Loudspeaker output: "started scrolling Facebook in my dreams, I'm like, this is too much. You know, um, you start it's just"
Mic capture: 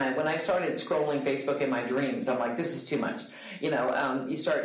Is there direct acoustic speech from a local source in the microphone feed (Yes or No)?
No